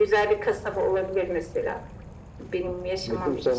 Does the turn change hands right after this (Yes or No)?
Yes